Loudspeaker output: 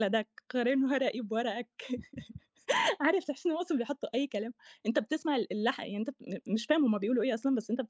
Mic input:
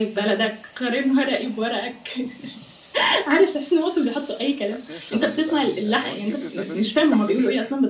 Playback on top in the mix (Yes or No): Yes